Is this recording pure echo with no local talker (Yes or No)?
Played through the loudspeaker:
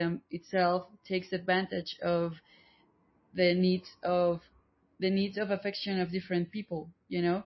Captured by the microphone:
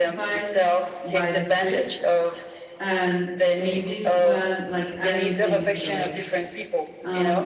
No